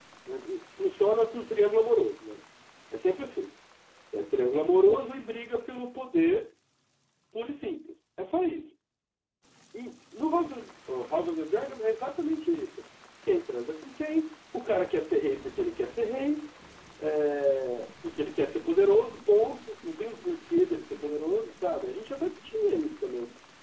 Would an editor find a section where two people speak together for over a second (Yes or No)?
No